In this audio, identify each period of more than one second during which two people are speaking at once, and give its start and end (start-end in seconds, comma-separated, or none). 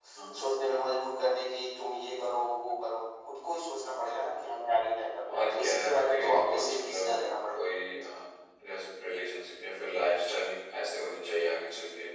5.3-7.6